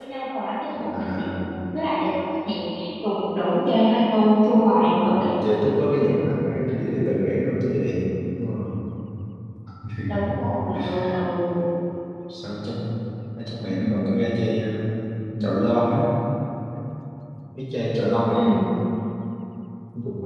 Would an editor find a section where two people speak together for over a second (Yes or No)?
No